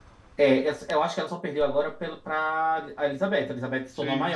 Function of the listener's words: listening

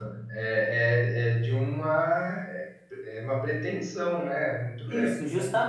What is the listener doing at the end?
taking over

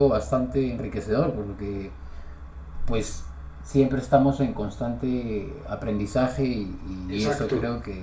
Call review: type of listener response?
listening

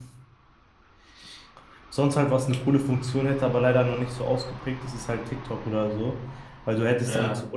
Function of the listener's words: listening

